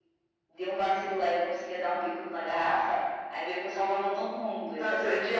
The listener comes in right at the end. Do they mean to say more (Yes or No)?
Yes